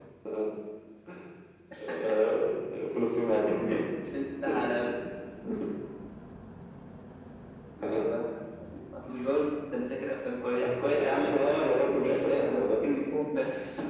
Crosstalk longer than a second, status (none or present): present